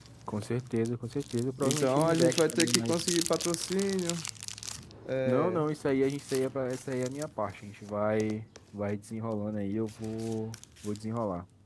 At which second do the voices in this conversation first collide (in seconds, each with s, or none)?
1.6 s